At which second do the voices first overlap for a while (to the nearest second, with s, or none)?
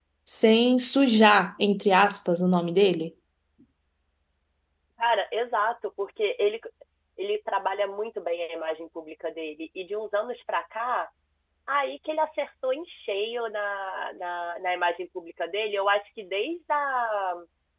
none